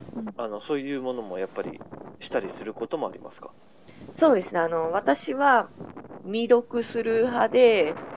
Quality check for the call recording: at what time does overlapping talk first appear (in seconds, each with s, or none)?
none